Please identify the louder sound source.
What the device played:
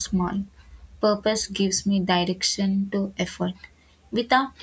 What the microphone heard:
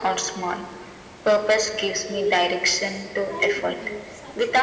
echo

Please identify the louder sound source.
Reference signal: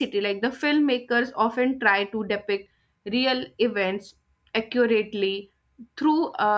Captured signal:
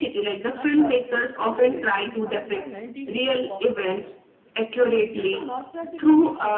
echo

